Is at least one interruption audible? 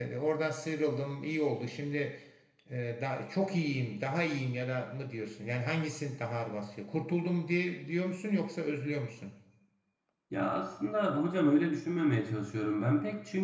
No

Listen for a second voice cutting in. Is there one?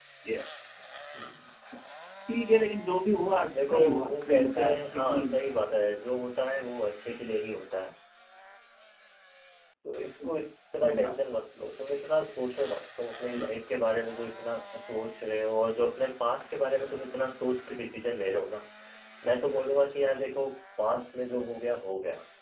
Yes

